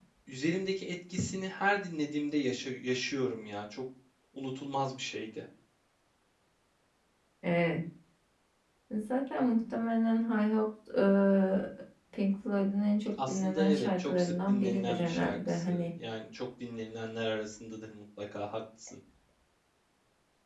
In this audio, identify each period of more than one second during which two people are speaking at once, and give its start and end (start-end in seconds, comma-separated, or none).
13.3-15.9